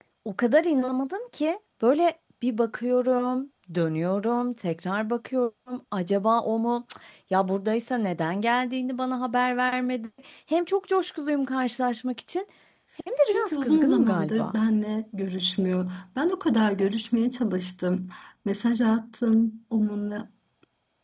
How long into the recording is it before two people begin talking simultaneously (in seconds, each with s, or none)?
13.2 s